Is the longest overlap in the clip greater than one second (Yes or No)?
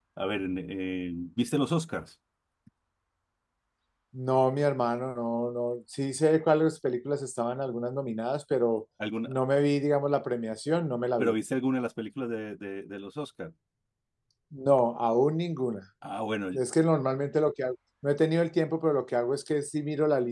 No